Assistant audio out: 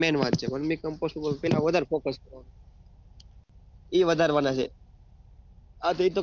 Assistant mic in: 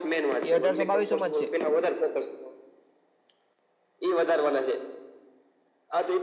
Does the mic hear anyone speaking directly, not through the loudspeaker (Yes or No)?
Yes